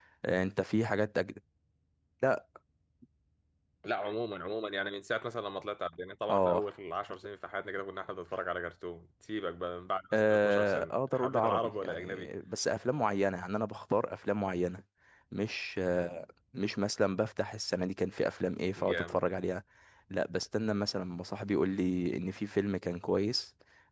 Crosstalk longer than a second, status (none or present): present